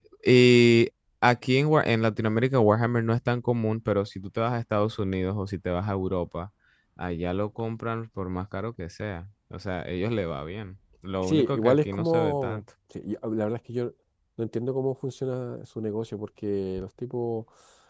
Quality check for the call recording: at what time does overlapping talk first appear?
11.2 s

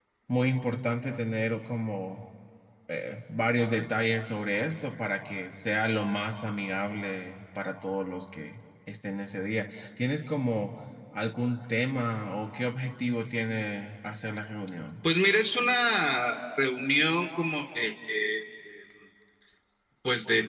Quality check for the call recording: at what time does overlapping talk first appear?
none

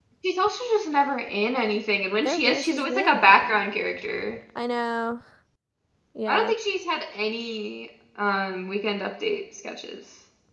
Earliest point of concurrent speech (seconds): 2.2 s

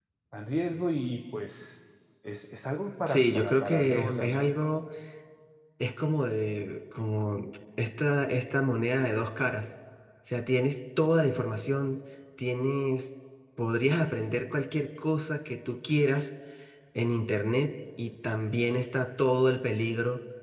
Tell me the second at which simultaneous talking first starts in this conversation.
3.1 s

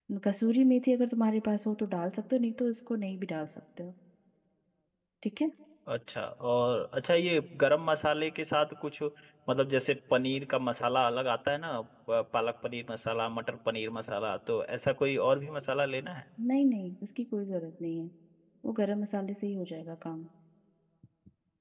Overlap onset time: none

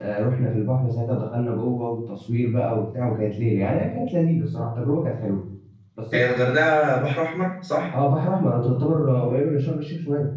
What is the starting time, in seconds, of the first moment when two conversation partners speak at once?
none

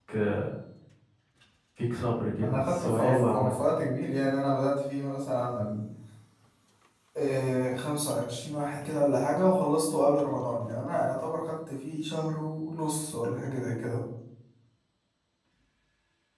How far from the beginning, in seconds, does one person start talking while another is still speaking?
2.4 s

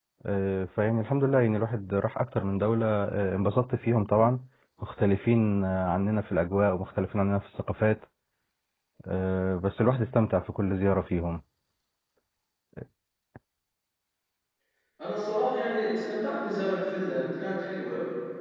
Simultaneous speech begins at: none

